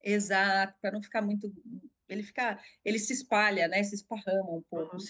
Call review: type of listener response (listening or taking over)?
taking over